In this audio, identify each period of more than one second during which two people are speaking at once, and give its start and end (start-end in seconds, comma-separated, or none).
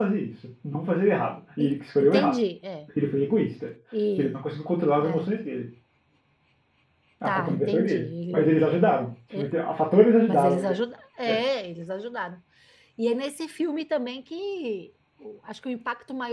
7.3-8.5